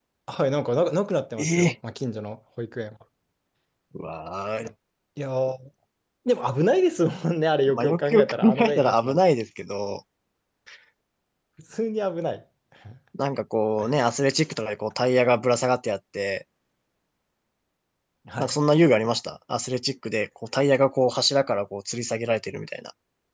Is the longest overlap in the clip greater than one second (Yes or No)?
Yes